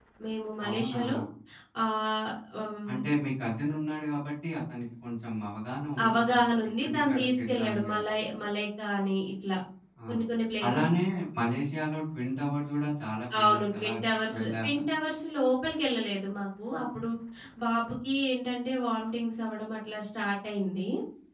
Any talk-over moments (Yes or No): Yes